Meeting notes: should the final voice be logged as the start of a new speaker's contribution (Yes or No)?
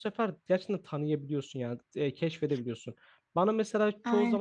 No